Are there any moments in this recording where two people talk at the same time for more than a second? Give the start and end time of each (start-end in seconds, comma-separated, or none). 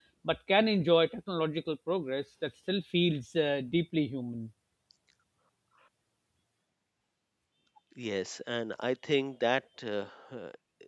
none